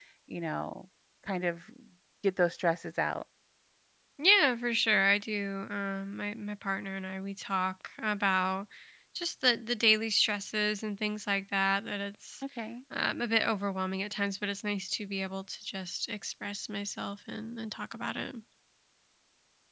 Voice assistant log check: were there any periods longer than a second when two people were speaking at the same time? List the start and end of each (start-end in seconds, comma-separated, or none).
none